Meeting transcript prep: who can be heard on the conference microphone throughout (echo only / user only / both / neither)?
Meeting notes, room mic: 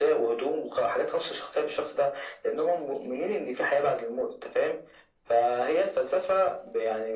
echo only